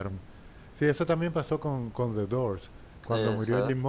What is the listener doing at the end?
listening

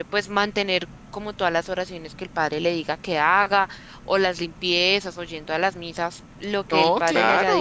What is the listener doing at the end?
taking over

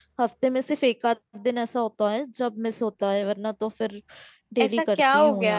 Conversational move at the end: taking over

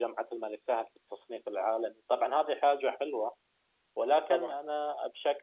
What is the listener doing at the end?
listening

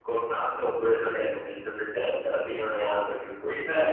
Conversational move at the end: taking over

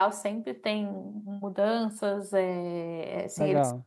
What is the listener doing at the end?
listening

